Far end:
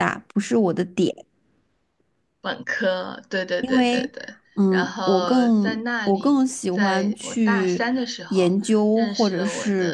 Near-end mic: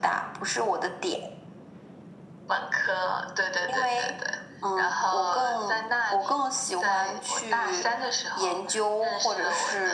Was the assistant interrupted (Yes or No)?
No